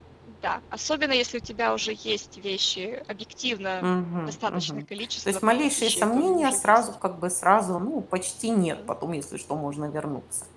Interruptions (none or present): present